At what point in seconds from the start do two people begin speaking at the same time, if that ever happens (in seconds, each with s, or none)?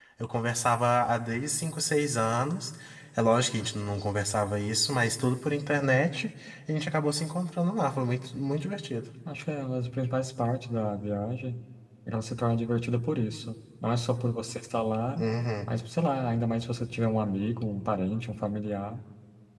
none